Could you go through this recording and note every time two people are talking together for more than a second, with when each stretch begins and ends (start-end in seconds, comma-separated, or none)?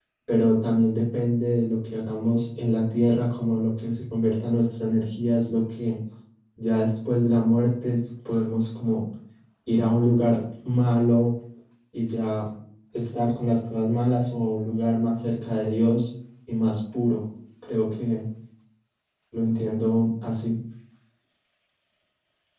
none